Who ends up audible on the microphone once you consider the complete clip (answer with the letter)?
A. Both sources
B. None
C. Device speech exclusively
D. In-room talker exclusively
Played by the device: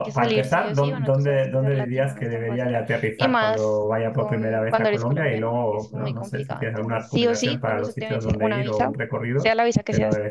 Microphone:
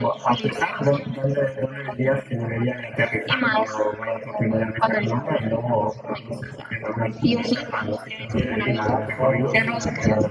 A